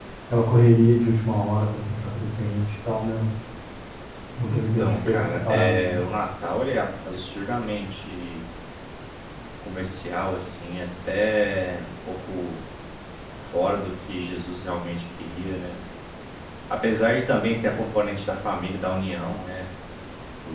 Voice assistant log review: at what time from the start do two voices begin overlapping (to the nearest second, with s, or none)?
4 s